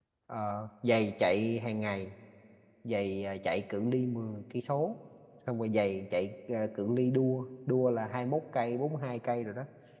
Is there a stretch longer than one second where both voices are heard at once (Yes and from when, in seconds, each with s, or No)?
No